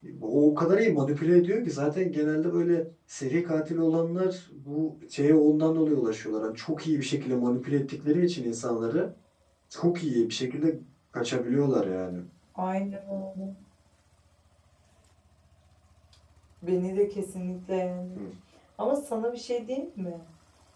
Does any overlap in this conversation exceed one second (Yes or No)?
No